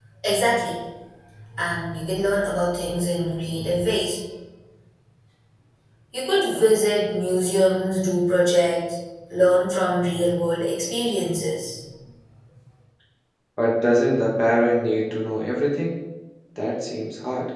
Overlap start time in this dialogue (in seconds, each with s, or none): none